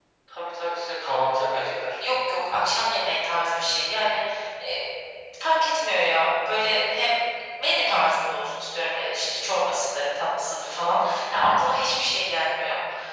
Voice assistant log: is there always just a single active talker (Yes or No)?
Yes